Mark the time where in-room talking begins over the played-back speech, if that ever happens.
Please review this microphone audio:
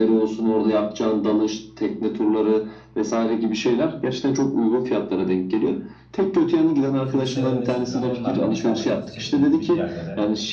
6.9 s

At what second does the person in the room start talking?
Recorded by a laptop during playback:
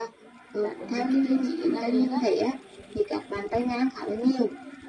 0.6 s

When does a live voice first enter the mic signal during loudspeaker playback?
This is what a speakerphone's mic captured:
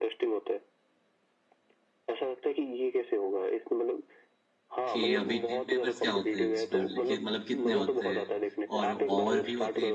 4.9 s

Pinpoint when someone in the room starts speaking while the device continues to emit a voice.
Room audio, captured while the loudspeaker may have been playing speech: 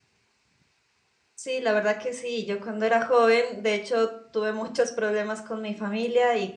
1.4 s

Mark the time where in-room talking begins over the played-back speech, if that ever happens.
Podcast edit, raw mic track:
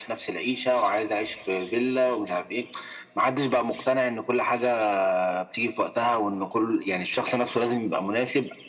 none

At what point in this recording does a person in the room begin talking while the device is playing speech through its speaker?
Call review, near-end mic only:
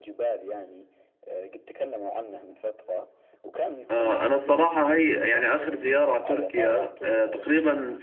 3.9 s

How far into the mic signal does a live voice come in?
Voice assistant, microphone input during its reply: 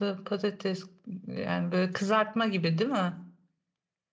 none

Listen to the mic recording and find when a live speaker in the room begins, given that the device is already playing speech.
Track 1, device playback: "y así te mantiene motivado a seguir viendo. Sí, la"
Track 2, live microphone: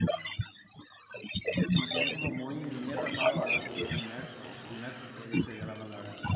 1.7 s

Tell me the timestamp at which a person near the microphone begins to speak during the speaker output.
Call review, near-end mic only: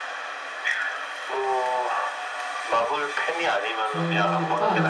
3.8 s

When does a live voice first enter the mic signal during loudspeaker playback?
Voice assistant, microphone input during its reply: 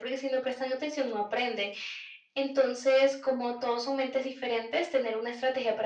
none

